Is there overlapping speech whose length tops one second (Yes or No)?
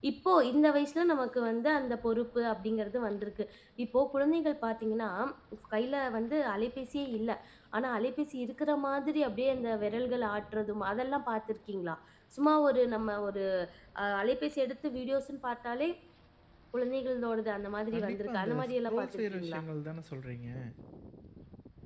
Yes